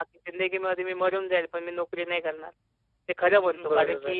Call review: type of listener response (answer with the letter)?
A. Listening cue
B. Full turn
A